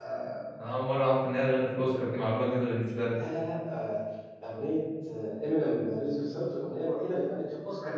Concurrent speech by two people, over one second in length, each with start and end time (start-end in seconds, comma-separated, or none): none